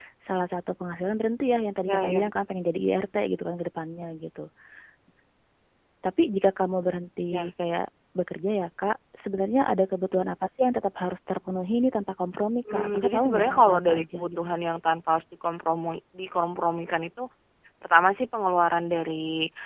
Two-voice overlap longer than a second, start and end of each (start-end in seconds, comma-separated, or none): 12.7-14.4